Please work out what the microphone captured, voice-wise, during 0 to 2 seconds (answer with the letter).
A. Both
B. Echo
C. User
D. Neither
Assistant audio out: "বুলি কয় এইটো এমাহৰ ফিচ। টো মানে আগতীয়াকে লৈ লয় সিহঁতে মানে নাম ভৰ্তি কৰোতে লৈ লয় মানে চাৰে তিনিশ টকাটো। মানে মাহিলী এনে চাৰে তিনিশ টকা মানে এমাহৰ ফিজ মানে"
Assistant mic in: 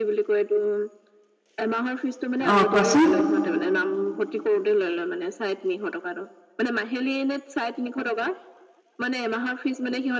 B